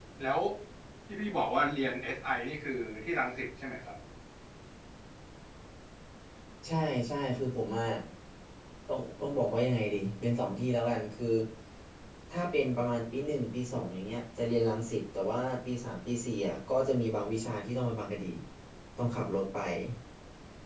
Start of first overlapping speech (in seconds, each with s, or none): none